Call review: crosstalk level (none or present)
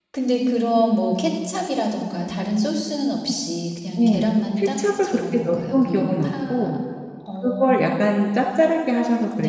present